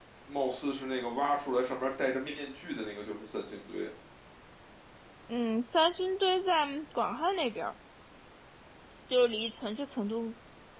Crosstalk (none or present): none